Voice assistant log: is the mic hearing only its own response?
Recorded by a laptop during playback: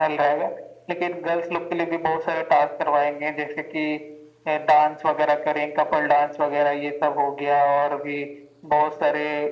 Yes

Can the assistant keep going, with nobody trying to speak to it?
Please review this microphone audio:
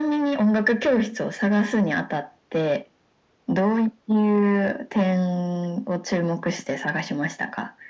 Yes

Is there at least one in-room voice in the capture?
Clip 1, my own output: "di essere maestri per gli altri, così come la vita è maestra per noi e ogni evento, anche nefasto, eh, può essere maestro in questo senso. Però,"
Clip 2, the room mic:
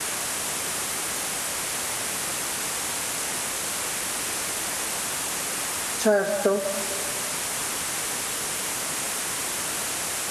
Yes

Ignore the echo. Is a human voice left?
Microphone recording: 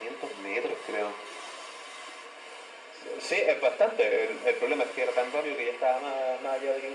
No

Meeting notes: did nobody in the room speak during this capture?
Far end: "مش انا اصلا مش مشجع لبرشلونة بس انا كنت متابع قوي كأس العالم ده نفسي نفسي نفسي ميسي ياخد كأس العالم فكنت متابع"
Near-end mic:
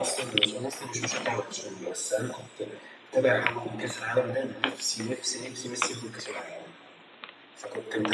Yes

